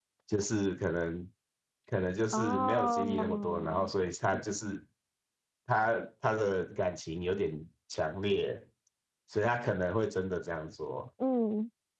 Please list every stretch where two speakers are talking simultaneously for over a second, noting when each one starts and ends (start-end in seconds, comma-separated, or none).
2.3-3.9